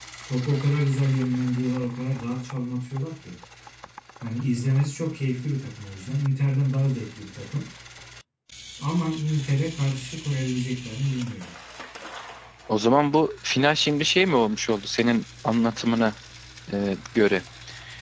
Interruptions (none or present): none